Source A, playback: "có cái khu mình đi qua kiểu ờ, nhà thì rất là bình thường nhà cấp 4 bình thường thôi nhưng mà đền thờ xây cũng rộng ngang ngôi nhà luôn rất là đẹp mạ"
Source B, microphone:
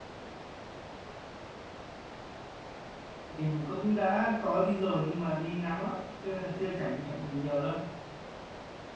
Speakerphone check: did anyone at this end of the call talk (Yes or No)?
Yes